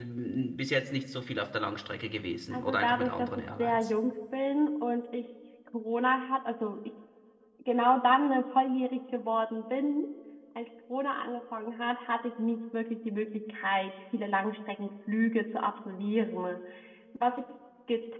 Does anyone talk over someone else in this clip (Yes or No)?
Yes